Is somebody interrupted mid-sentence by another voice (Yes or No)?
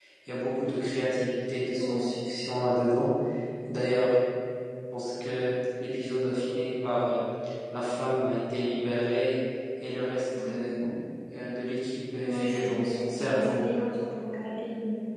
Yes